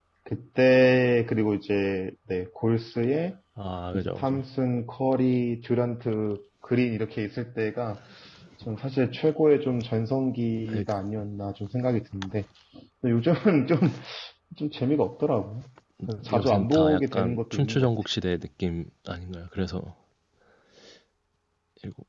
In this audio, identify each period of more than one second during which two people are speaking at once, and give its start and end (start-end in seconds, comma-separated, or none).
16.3-17.9